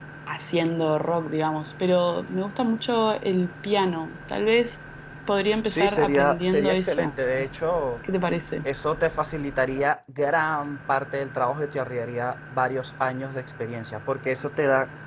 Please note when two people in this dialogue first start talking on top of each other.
6 s

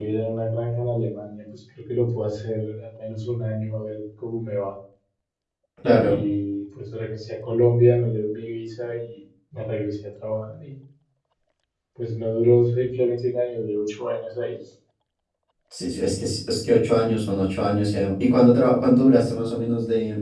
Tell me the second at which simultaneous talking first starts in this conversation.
none

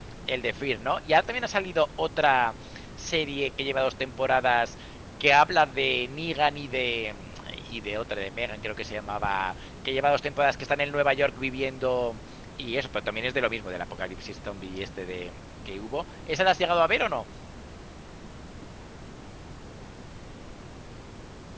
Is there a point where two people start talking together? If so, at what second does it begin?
none

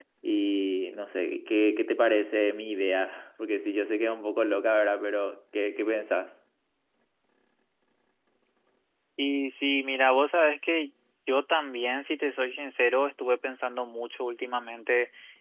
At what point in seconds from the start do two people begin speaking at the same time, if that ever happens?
none

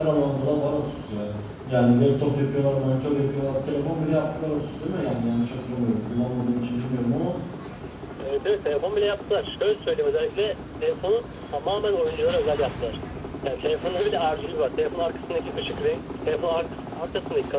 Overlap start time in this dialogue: none

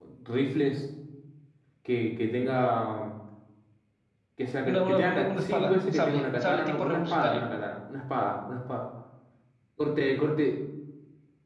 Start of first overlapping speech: 5 s

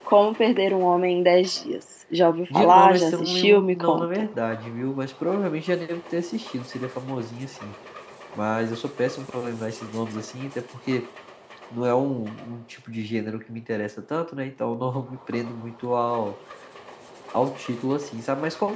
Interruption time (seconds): 3 s

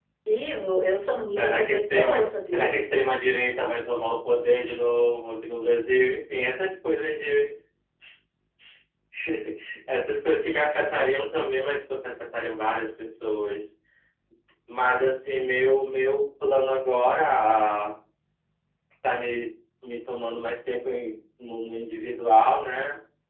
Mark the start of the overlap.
1 s

